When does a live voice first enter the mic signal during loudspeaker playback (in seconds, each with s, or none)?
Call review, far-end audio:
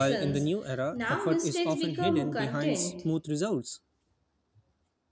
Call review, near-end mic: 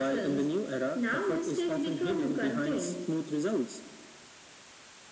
none